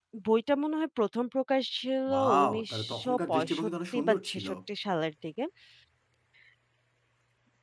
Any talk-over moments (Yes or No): Yes